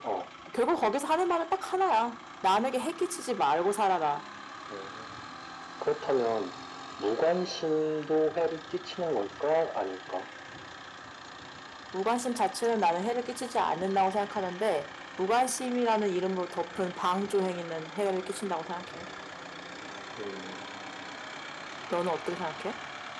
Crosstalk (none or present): none